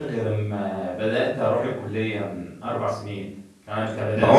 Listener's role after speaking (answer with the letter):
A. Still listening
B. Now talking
B